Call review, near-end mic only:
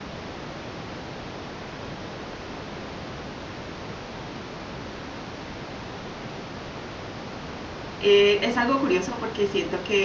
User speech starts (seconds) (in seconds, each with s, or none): 8.0 s